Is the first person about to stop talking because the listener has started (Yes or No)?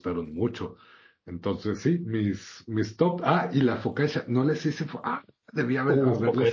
Yes